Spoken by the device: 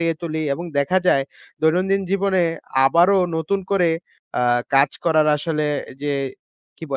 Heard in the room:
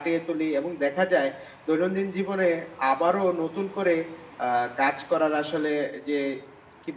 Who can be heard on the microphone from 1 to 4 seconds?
echo only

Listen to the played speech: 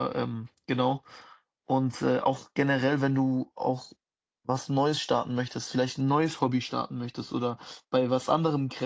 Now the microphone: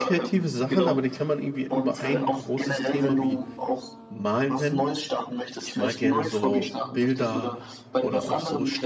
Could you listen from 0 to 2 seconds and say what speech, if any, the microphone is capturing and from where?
both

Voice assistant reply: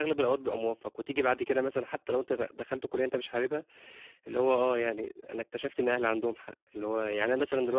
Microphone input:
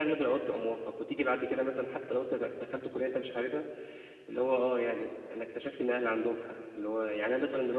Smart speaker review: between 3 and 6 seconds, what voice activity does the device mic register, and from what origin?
echo only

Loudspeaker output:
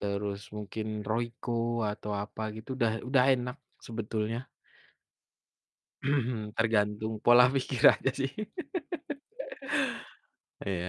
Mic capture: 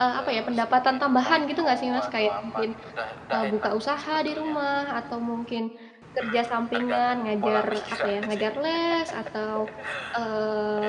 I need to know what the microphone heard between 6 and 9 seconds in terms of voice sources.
both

